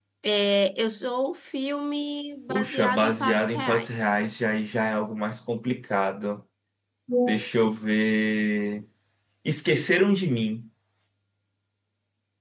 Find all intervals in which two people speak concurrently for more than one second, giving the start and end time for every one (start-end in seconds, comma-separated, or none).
2.5-4.1